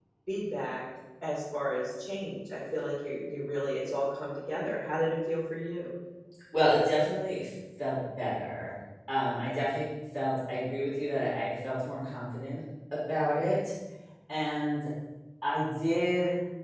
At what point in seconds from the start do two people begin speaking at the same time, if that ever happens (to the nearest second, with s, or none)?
none